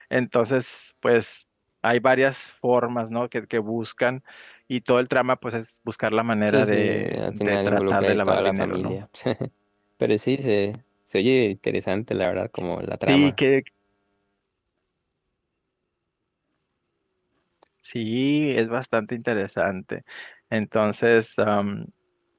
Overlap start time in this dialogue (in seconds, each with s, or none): 6.5 s